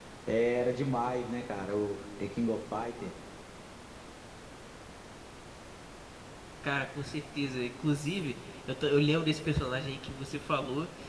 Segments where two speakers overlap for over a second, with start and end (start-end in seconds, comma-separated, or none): none